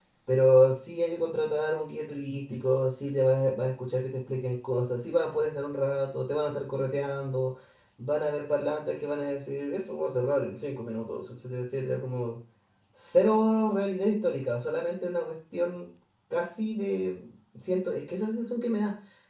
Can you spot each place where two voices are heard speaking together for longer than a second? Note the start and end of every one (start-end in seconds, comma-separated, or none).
none